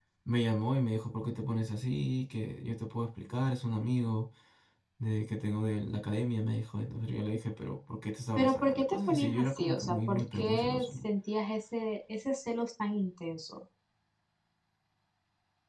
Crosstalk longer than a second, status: present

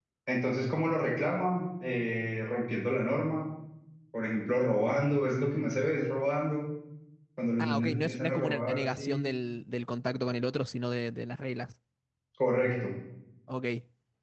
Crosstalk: present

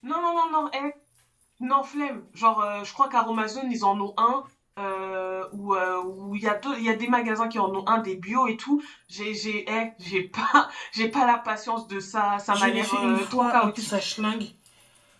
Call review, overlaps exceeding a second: present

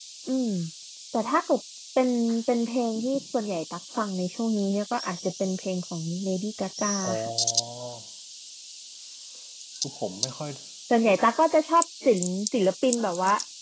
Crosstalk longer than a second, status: none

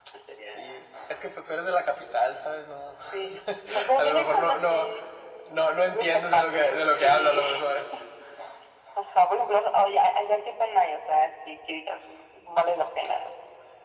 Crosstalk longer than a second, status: present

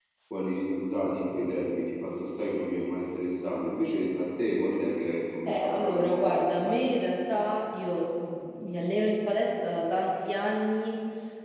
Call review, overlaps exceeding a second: present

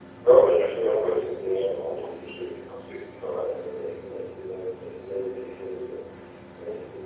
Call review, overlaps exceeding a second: present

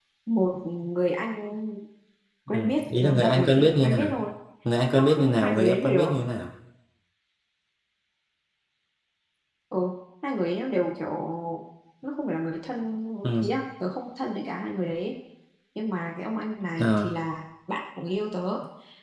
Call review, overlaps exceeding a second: present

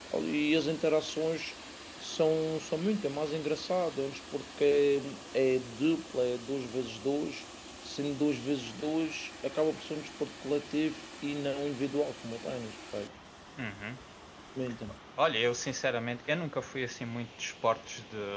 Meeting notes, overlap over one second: none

